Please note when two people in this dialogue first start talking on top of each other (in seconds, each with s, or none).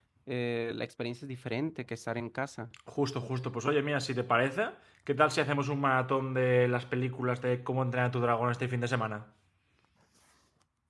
none